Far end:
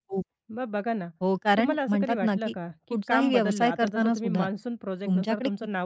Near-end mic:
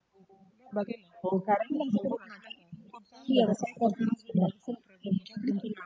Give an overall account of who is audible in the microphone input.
echo only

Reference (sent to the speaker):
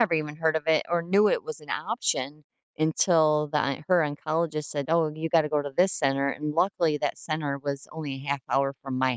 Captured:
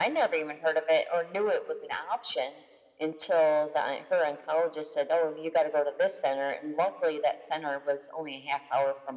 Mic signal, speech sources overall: echo only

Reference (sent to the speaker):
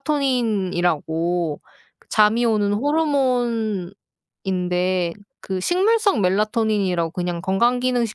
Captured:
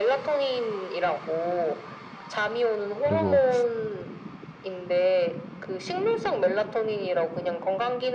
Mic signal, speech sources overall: both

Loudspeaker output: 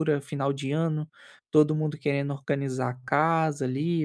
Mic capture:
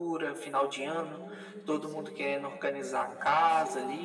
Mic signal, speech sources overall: both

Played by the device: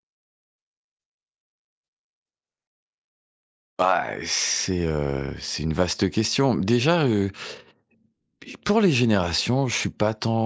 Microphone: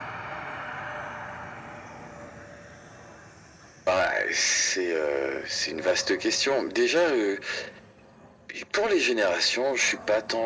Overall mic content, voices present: echo only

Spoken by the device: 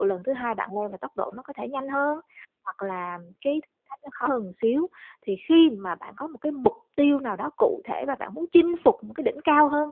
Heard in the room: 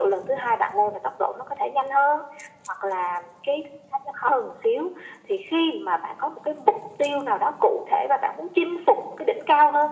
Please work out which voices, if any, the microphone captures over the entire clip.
echo only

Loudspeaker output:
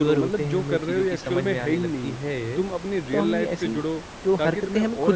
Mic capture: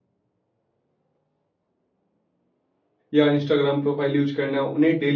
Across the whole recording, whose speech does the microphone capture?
user only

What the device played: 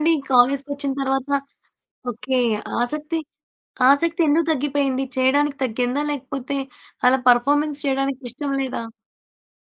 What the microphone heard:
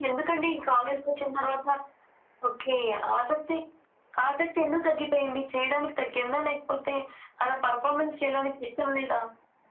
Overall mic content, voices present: echo only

